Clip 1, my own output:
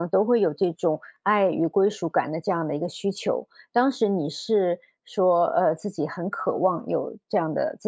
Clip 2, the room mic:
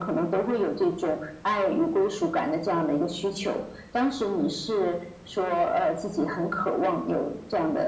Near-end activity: none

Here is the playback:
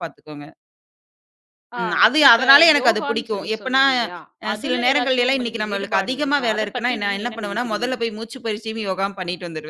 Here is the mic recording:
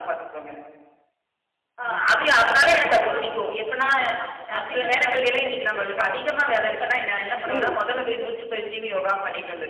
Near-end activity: present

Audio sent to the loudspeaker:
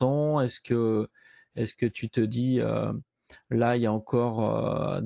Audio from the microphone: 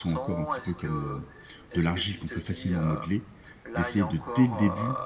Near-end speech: present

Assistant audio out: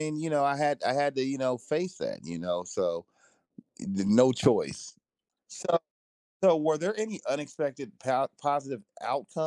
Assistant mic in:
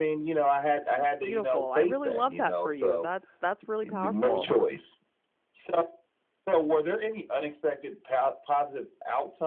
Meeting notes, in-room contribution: present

